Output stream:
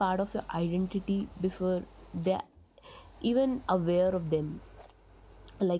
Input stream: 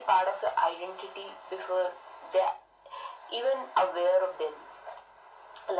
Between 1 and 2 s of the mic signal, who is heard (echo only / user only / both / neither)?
echo only